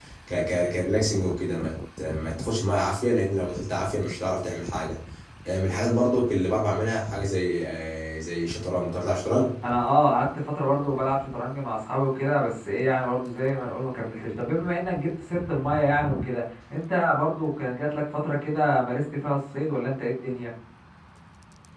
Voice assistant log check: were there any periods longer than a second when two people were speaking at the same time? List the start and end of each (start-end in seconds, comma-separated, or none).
none